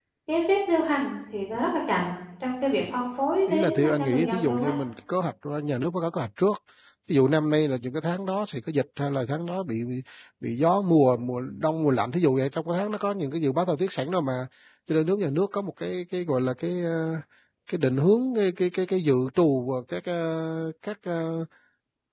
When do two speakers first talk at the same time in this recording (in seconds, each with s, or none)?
3.5 s